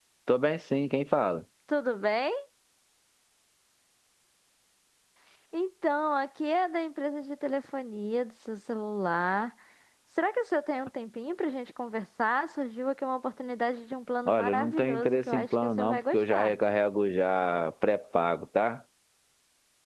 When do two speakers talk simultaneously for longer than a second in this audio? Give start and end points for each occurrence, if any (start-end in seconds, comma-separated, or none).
14.2-16.5